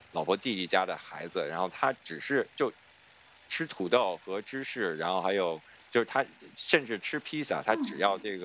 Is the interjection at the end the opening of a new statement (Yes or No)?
No